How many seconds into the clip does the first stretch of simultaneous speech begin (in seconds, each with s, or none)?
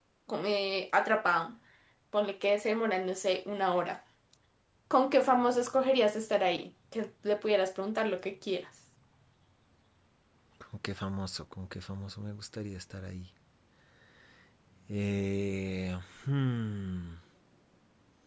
none